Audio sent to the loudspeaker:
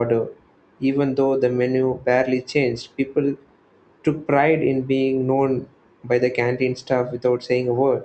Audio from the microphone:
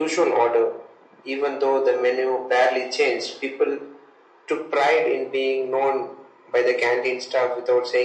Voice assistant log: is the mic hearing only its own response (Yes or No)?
Yes